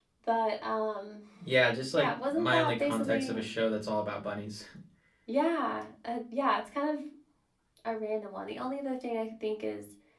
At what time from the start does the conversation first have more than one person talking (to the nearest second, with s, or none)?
2 s